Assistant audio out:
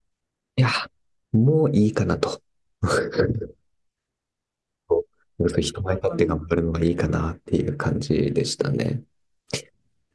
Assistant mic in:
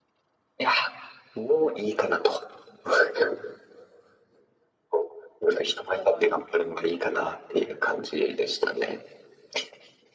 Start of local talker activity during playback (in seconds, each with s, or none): none